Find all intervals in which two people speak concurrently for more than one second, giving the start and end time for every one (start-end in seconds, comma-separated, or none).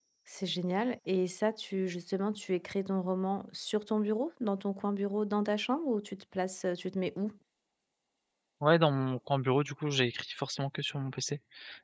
none